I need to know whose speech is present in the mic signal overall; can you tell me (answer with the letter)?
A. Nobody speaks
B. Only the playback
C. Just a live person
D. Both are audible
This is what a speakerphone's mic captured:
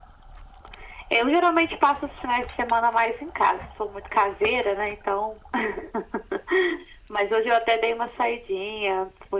B